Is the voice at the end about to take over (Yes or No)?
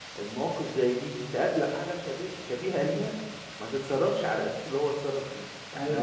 Yes